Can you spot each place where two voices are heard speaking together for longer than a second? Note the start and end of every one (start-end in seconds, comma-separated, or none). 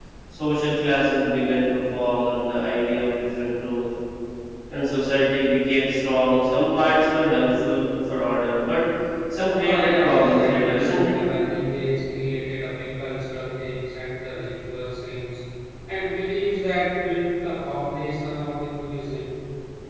9.6-11.1